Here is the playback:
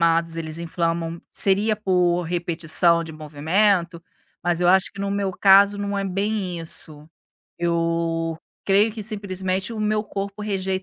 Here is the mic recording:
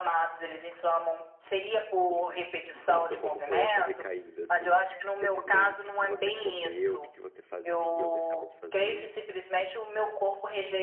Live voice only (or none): Sim. E me conta como foi essa recaída, assim, esses meses. o Que que você comeu, O que que você fazia ou deixava de fazer?